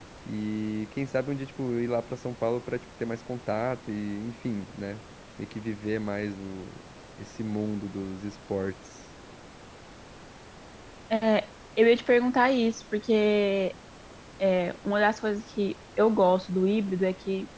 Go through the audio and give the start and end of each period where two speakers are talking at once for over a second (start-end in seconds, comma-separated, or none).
none